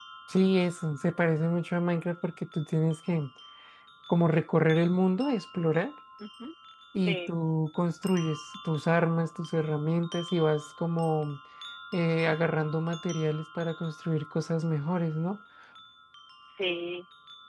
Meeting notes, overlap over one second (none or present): none